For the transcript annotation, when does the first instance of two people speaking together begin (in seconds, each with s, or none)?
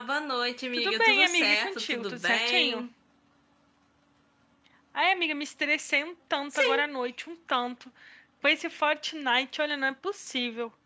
0.7 s